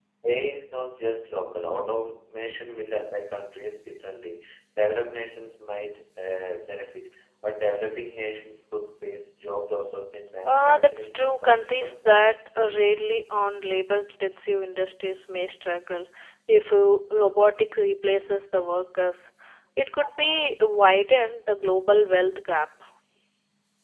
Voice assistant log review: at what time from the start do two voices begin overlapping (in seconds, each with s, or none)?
10.4 s